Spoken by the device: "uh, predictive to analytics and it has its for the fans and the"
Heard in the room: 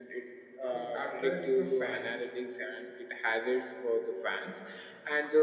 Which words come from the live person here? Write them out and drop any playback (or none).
it's attract the fans